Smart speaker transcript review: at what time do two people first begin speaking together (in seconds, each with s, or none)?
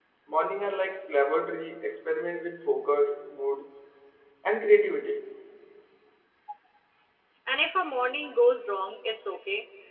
none